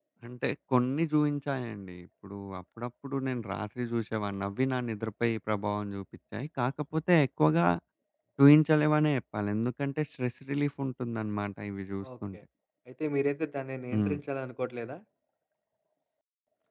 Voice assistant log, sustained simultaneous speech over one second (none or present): none